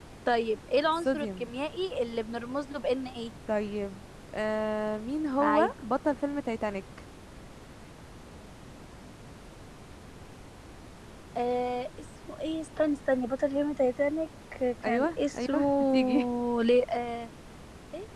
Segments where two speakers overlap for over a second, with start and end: 14.9-16.3

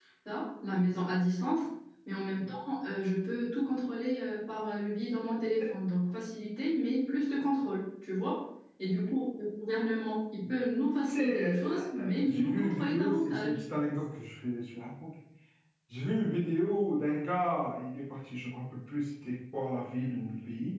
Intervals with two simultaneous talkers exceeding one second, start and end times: 11.1-13.6

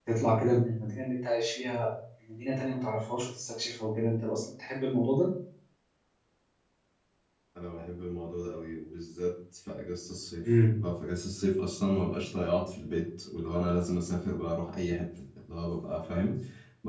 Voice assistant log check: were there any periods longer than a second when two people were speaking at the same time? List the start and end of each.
none

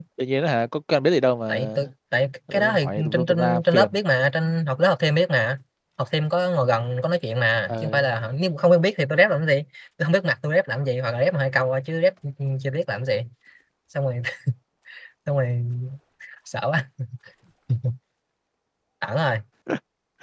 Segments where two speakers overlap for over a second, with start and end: 2.5-4.0

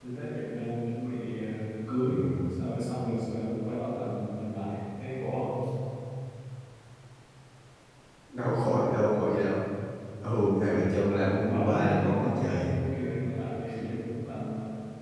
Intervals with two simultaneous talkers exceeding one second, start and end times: 11.4-12.7

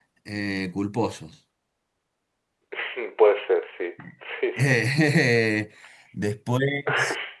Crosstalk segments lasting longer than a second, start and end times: none

